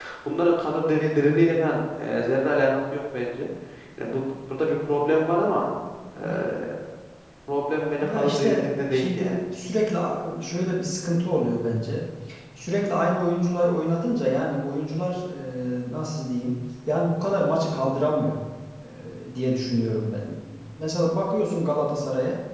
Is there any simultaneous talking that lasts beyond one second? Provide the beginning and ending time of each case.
8.0-9.4

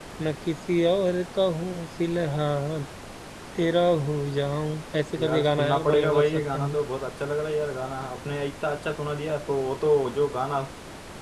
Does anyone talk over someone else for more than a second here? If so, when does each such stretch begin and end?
5.2-6.8

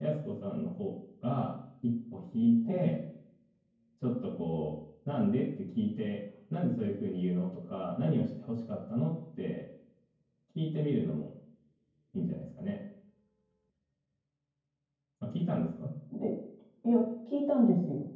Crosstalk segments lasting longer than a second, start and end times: none

